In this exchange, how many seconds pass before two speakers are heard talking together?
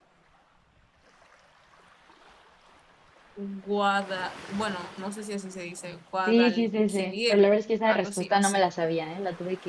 6 s

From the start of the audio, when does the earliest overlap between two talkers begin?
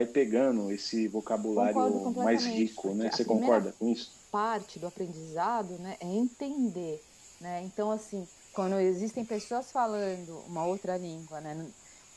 2 s

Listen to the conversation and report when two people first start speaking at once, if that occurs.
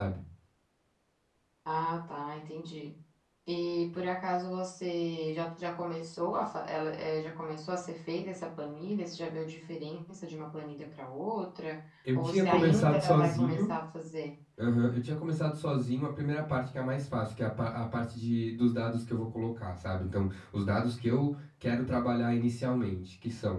12 s

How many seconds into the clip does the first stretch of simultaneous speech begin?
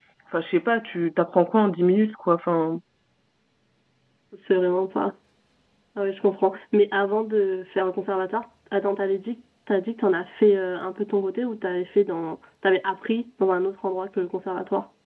none

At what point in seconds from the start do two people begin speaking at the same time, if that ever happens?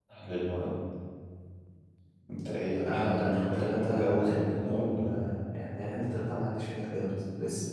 3 s

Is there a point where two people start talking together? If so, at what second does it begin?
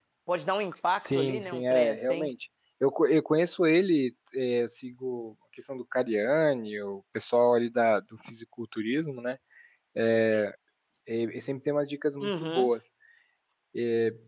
1 s

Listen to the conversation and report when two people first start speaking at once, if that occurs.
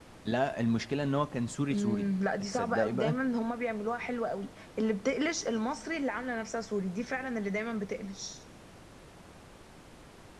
2 s

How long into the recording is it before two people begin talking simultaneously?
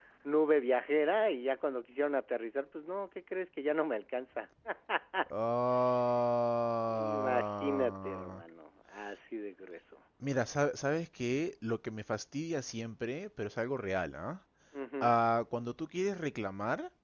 7 s

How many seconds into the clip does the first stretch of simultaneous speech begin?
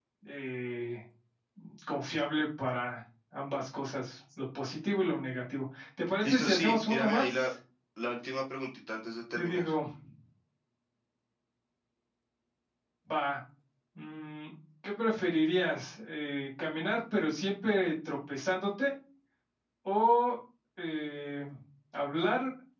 6 s

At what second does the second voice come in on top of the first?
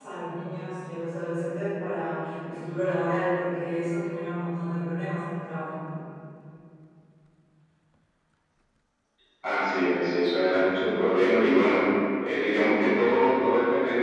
none

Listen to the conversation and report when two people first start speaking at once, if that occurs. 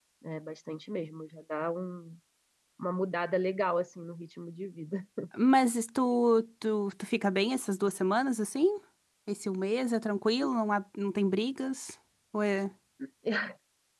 none

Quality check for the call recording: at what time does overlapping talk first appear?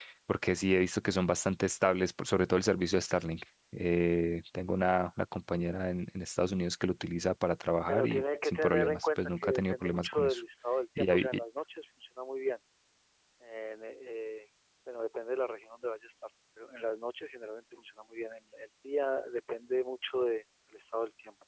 8 s

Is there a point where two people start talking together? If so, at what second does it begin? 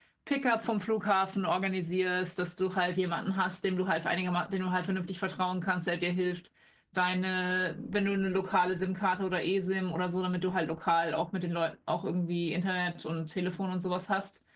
none

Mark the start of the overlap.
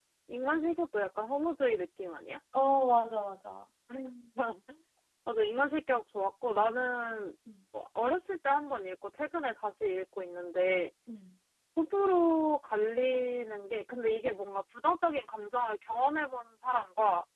none

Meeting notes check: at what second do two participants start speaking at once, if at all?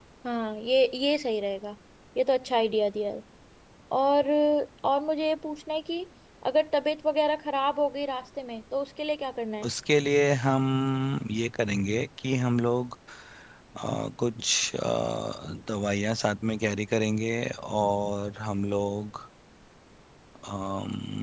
none

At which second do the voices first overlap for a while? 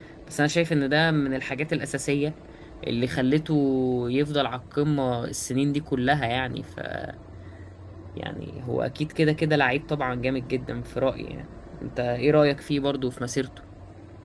none

